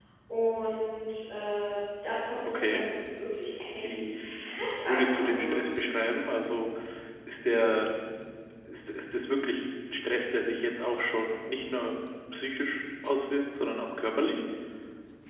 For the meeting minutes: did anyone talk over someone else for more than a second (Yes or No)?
Yes